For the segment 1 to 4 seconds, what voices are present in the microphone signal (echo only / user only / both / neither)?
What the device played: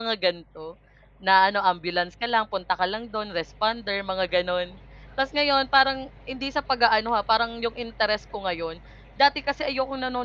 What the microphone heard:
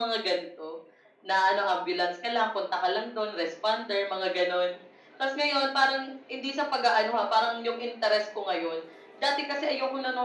echo only